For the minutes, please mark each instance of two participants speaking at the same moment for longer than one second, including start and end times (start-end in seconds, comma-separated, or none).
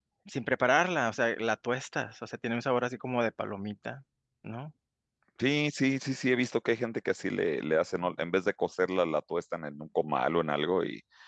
none